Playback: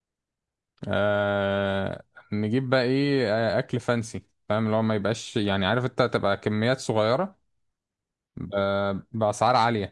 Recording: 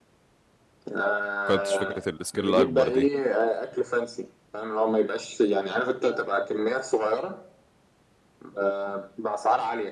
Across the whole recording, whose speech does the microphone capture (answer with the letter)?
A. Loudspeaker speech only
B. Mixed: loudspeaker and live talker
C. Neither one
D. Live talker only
B